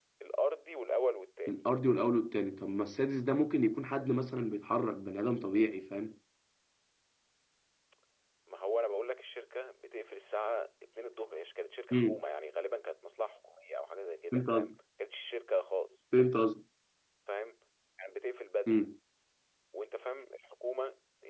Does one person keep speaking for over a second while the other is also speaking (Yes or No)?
No